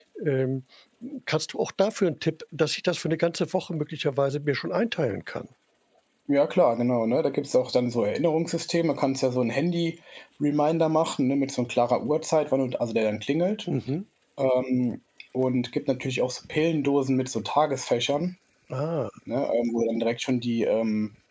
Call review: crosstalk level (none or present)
none